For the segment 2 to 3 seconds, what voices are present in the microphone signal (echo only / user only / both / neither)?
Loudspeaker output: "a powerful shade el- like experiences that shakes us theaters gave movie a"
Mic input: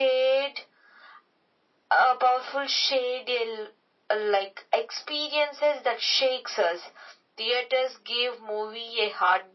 echo only